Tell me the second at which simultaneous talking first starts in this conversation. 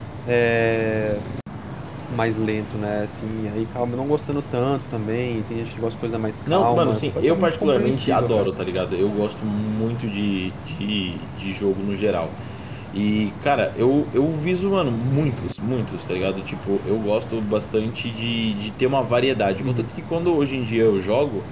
6.5 s

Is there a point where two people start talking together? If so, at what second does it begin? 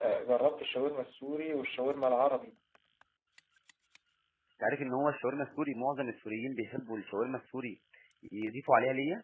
none

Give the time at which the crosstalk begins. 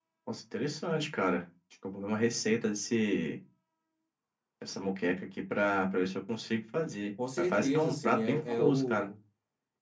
7.2 s

